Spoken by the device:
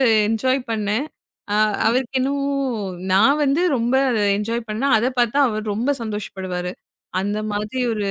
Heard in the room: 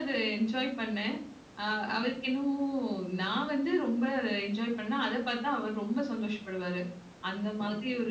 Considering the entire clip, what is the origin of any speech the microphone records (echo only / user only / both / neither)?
echo only